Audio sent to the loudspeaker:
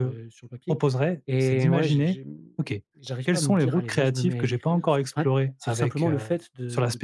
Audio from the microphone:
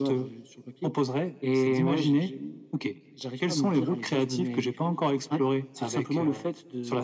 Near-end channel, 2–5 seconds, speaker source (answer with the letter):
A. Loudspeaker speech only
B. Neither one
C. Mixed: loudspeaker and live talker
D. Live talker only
A